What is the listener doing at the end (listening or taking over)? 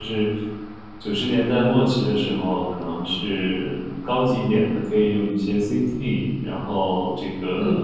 listening